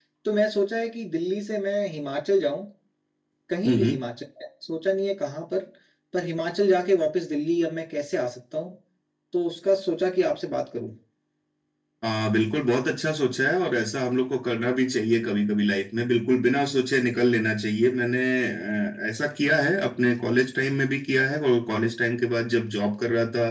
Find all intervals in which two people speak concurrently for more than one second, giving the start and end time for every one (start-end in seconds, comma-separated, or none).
none